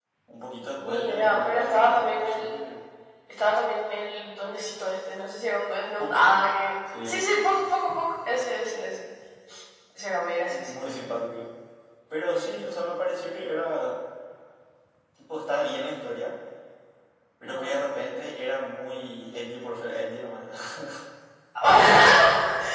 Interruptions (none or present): present